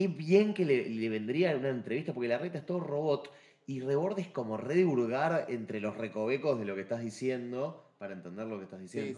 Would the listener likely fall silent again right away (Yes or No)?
No